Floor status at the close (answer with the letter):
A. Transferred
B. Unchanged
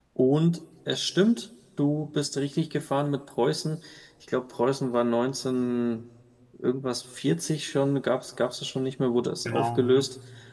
B